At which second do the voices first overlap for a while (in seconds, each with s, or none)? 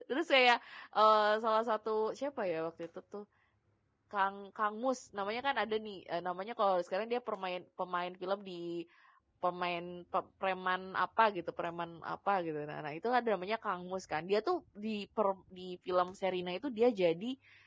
none